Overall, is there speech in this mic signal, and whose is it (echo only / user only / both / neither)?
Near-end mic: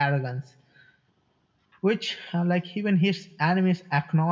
echo only